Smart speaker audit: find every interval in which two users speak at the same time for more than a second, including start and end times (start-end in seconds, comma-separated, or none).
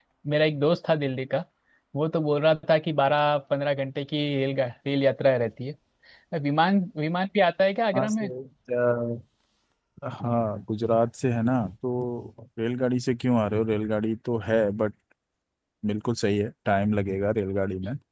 none